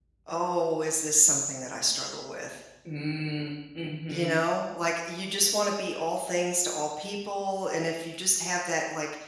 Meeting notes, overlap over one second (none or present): none